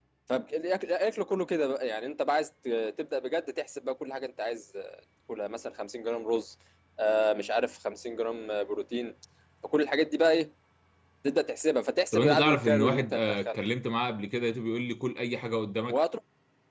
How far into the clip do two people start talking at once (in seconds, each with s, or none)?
12.1 s